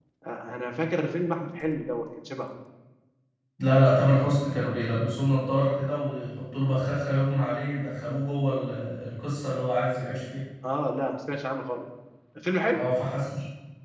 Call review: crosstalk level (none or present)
none